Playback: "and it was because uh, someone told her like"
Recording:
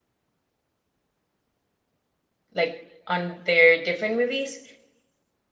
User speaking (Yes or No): Yes